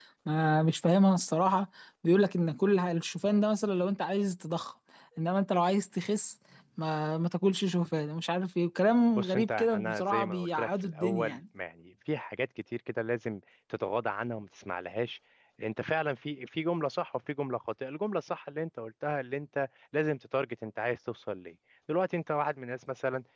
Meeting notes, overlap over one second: present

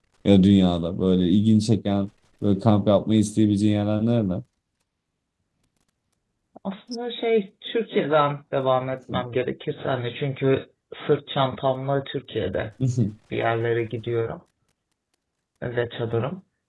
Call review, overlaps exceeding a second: none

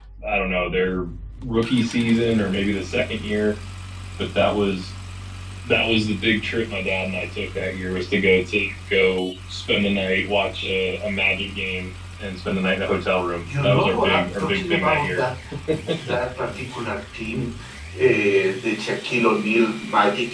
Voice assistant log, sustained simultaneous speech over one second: present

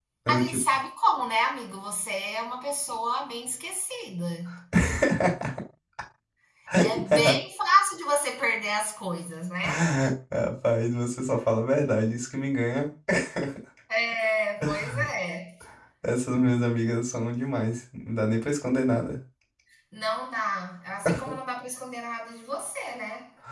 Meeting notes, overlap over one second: none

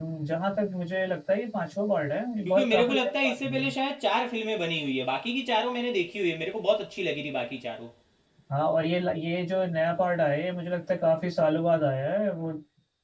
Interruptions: present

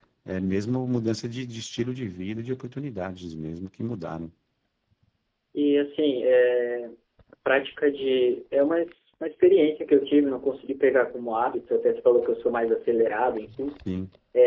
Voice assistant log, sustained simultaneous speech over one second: none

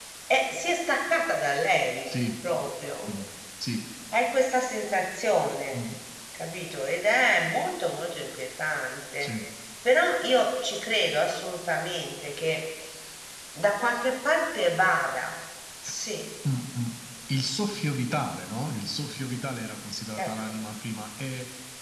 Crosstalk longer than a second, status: none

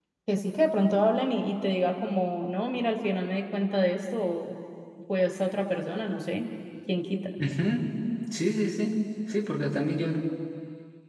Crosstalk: none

